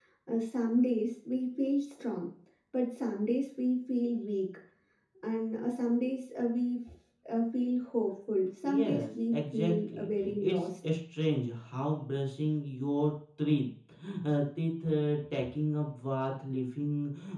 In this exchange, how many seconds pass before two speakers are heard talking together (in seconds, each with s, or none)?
8.6 s